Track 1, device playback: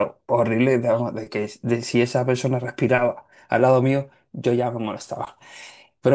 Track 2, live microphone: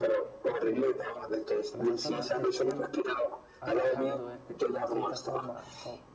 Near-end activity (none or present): present